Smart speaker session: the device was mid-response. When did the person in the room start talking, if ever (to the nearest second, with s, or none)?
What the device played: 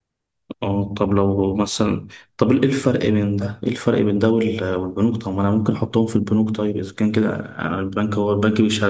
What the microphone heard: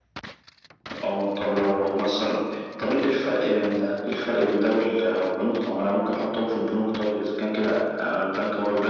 none